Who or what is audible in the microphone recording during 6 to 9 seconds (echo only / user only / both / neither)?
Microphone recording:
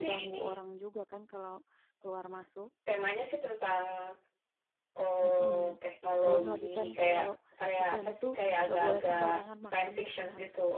both